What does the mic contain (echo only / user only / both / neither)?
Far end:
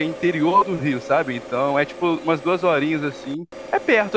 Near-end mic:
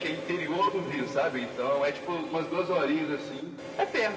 echo only